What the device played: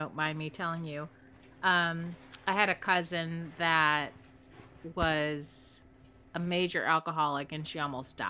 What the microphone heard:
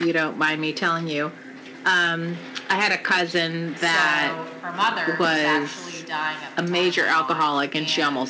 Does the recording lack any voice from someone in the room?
No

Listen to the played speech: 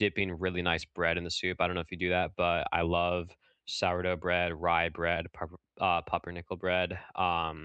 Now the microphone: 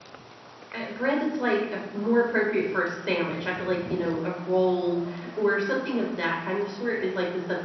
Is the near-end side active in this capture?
Yes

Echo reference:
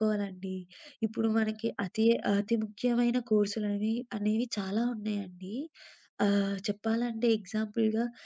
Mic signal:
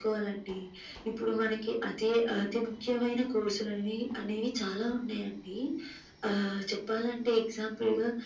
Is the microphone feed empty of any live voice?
Yes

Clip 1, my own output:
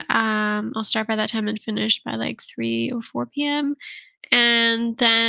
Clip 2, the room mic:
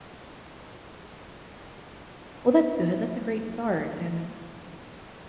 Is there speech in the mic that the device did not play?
Yes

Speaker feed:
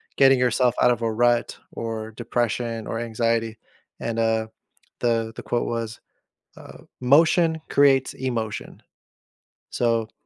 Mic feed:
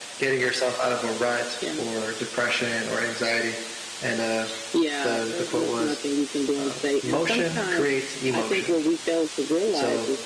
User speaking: Yes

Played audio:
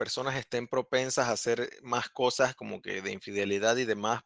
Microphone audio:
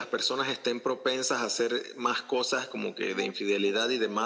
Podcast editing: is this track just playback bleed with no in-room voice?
No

